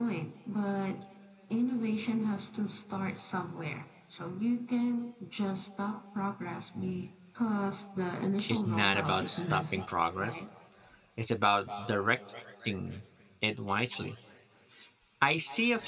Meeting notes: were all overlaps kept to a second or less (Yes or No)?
No